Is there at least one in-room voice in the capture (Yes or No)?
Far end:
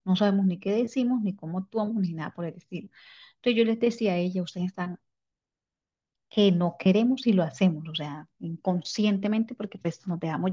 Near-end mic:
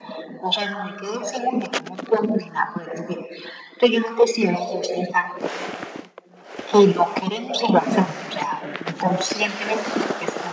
No